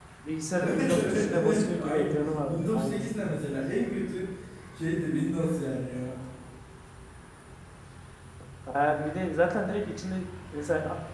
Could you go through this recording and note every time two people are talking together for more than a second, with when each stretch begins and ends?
0.5-3.5

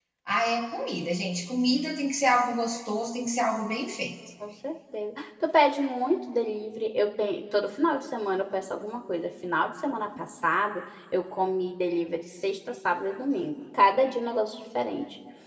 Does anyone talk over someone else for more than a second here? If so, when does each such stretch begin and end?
none

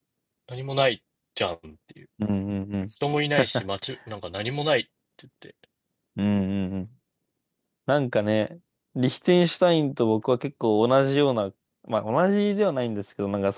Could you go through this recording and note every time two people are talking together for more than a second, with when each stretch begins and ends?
none

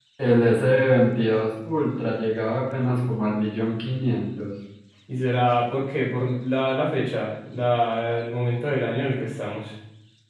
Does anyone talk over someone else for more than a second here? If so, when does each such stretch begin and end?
none

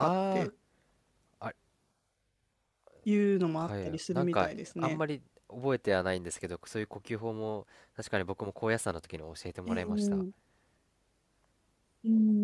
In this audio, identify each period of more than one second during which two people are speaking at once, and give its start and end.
3.6-5.0

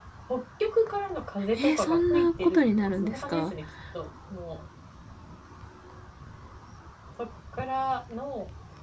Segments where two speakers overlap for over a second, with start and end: 1.6-3.5

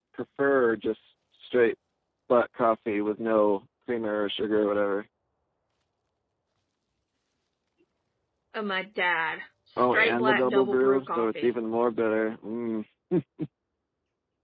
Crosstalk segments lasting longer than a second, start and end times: 9.8-11.5

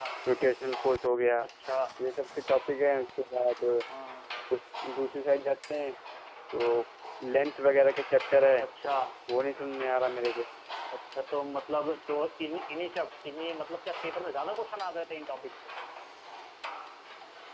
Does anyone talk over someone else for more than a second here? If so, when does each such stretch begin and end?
none

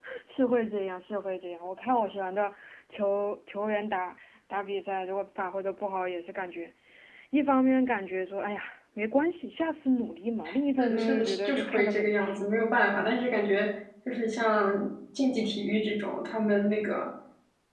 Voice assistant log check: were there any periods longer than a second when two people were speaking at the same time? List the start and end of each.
10.8-12.5

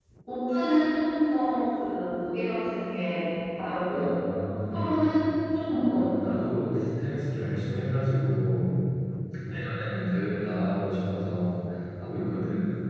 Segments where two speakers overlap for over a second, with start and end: none

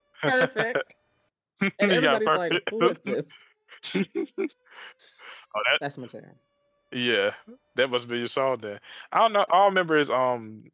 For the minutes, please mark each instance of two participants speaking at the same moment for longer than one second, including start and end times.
1.8-3.2

